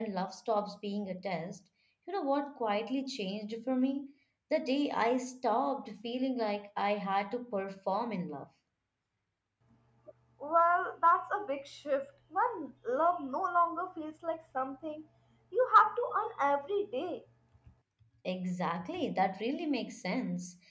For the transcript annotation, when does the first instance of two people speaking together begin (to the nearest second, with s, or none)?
none